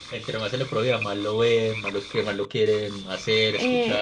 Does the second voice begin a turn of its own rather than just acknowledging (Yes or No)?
Yes